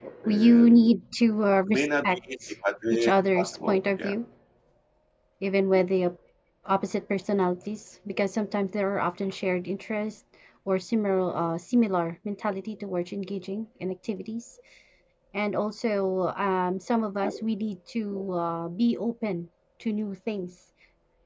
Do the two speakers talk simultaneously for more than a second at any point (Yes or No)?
Yes